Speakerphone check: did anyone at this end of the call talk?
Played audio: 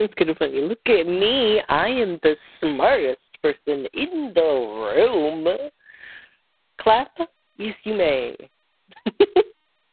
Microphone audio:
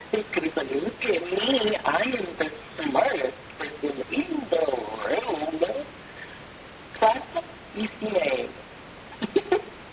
No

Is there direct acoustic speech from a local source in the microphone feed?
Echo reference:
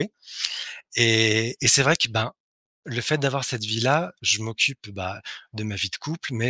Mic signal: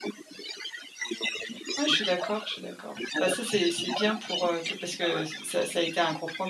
Yes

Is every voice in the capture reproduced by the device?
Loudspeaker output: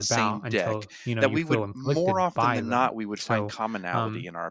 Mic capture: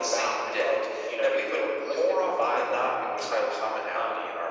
Yes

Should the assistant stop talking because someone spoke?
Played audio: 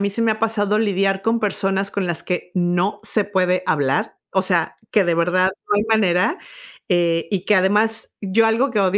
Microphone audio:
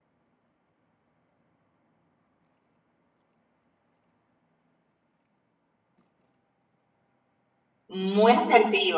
Yes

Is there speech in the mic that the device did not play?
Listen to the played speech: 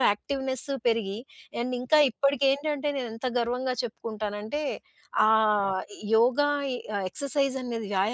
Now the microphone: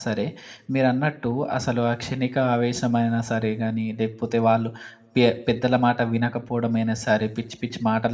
Yes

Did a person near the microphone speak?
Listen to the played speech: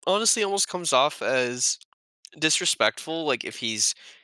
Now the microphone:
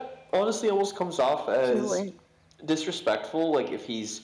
Yes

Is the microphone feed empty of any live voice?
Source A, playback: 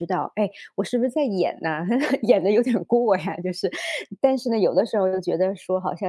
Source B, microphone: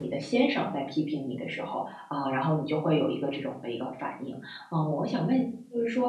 No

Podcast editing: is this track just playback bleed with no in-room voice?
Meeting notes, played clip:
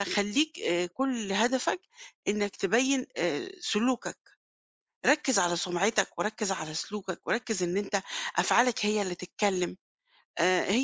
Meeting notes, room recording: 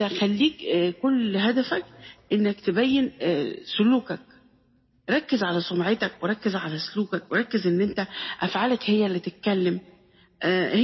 Yes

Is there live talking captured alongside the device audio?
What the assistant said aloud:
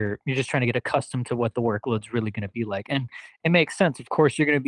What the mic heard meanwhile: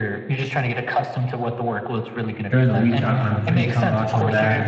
Yes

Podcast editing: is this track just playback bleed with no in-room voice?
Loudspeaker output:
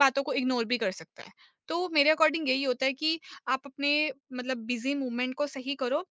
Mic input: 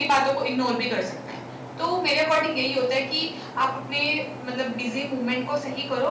Yes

